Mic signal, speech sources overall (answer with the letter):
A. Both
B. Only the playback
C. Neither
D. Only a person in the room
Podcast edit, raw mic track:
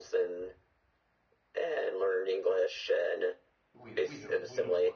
A